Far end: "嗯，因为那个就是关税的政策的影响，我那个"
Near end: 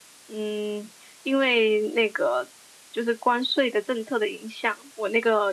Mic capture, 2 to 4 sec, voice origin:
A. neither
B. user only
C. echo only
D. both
C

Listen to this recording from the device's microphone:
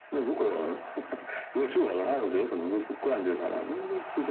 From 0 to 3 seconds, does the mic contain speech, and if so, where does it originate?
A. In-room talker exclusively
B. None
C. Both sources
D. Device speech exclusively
D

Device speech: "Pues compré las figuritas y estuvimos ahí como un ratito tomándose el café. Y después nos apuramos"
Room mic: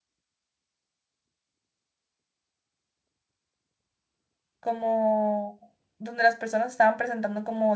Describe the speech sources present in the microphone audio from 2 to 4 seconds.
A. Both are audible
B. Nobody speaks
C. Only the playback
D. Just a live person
B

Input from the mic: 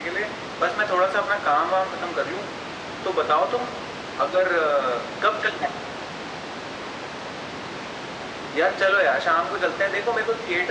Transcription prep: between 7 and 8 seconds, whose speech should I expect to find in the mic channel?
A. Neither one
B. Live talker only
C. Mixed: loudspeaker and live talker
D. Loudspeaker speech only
A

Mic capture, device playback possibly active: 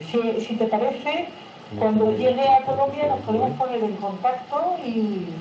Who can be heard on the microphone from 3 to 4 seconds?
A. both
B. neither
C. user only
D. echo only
A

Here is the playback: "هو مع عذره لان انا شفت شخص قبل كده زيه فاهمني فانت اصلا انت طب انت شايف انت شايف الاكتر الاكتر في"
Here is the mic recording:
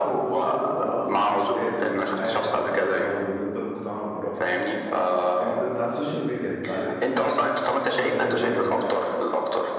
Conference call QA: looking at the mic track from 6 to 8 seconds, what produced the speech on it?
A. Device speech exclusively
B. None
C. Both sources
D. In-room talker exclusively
C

